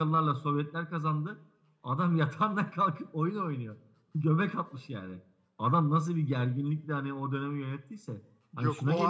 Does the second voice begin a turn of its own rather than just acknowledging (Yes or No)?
Yes